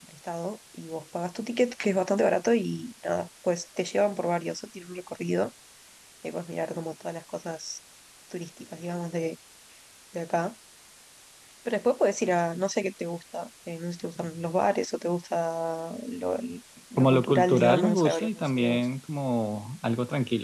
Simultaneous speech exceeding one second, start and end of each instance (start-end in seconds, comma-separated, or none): 17.0-18.9